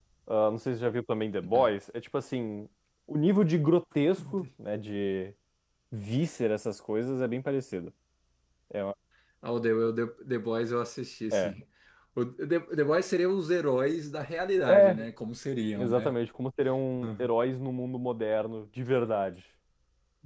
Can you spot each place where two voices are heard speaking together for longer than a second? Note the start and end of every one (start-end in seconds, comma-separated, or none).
none